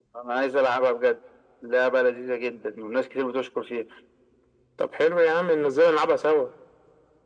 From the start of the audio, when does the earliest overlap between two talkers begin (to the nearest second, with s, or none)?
none